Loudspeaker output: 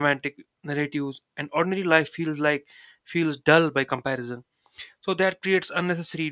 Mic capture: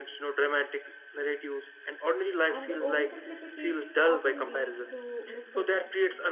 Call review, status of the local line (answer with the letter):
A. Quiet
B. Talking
B